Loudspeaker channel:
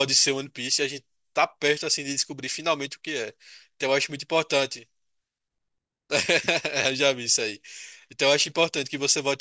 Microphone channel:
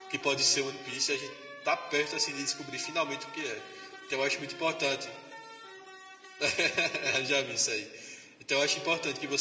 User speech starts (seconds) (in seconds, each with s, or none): none